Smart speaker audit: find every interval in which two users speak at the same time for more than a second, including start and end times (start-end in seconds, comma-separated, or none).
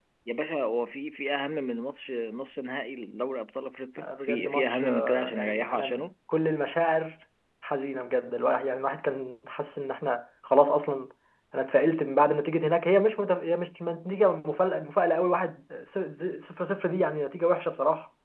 4.0-6.0